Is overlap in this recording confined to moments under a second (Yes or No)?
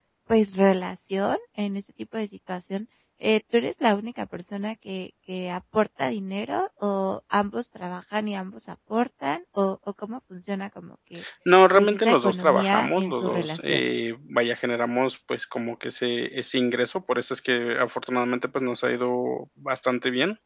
No